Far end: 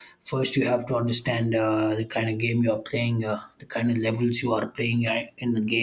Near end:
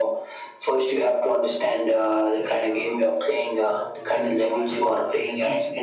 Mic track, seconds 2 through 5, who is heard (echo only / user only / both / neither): both